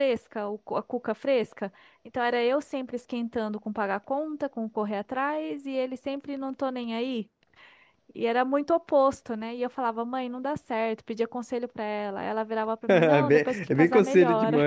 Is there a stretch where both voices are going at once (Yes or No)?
Yes